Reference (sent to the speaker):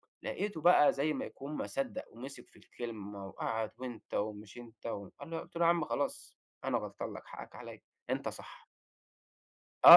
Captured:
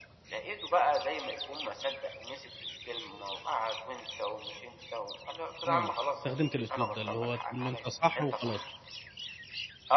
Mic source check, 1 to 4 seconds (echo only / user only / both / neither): echo only